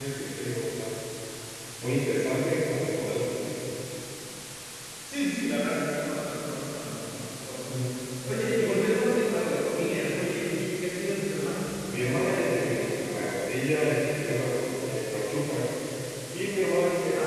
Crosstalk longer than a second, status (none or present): none